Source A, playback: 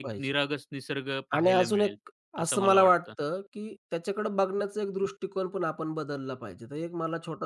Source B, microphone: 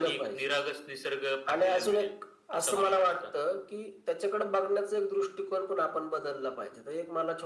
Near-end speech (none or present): none